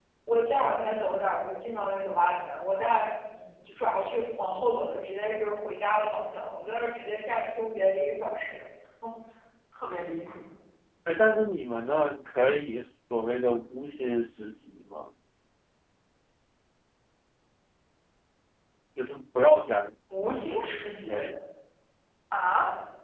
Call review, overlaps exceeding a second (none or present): none